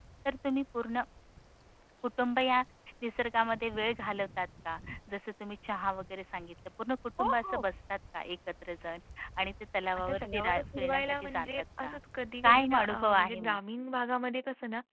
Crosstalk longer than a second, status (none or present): present